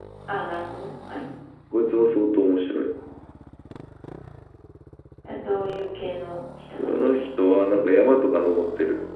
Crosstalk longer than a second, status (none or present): none